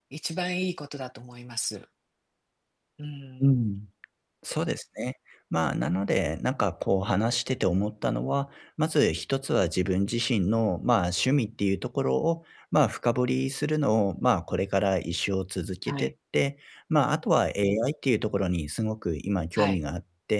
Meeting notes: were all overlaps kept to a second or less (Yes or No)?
Yes